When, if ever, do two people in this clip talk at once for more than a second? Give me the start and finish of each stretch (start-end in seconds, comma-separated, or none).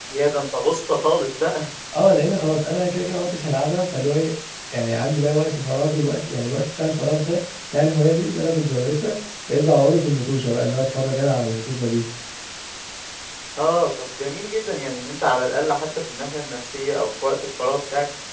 none